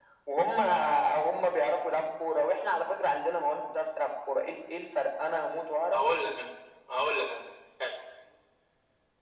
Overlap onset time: none

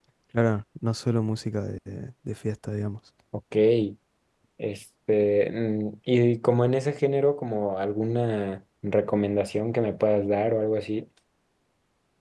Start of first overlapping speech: none

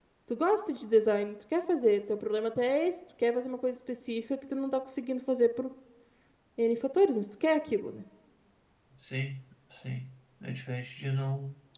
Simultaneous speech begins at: none

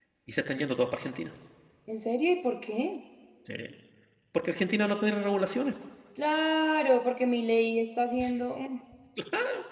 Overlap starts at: none

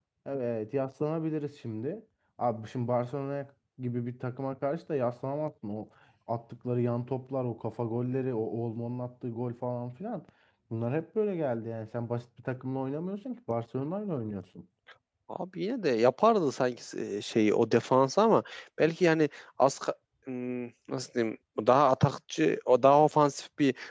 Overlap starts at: none

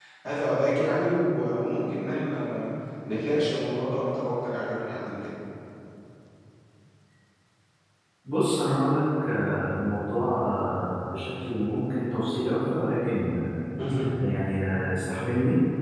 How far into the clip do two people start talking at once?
none

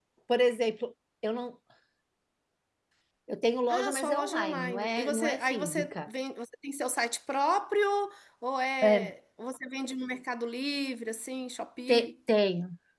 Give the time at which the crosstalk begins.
3.7 s

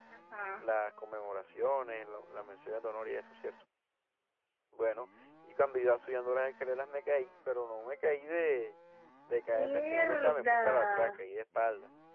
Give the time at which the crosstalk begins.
9.5 s

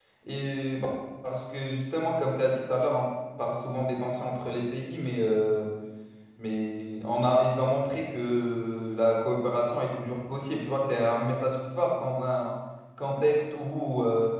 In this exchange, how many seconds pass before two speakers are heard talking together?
none

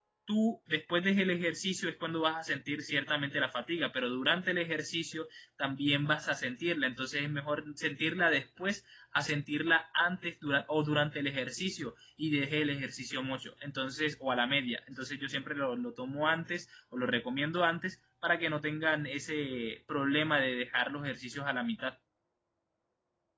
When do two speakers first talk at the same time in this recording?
none

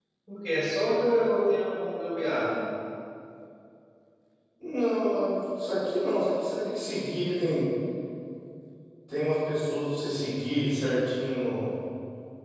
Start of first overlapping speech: none

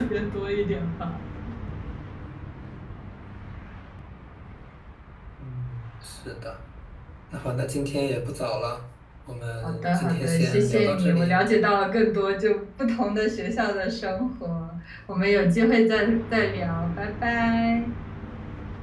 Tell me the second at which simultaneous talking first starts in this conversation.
9.6 s

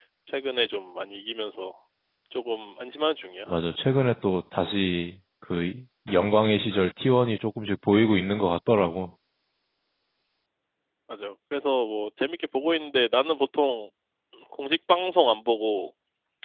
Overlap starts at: none

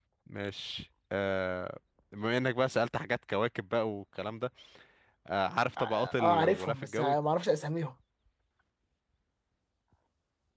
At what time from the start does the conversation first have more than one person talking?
5.8 s

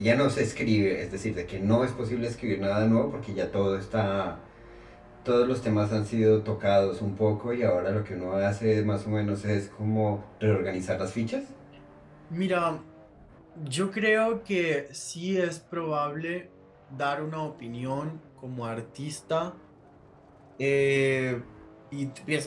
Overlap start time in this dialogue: none

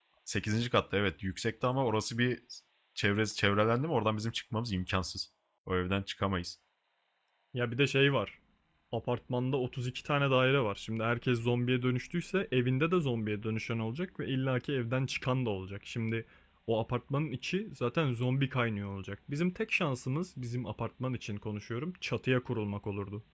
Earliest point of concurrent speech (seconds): none

